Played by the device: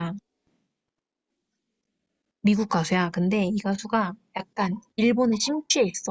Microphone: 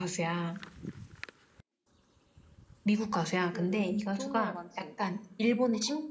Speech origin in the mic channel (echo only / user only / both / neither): both